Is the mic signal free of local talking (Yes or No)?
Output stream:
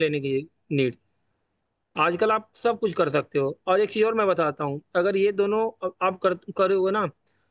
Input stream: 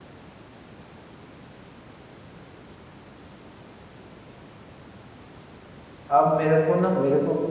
No